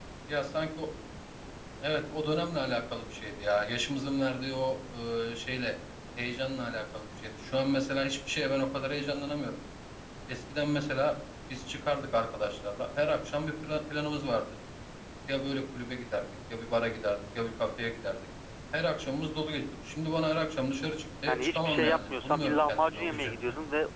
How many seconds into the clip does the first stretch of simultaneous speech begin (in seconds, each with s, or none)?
21.3 s